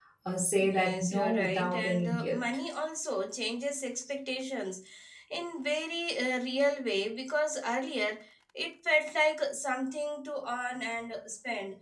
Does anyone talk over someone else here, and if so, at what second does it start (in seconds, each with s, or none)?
0.7 s